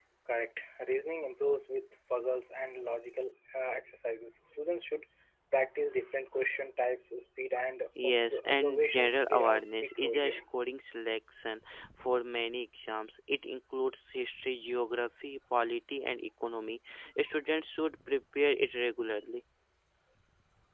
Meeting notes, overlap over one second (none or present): present